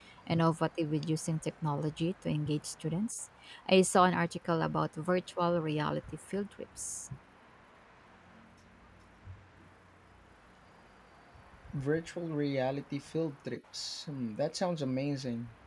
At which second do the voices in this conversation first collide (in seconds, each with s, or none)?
none